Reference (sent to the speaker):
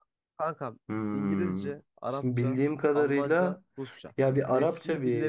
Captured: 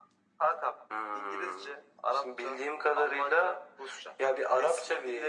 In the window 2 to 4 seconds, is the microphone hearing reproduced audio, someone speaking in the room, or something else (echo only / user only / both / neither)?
echo only